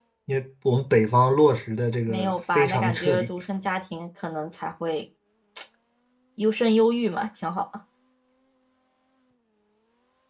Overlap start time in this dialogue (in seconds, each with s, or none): 2.0 s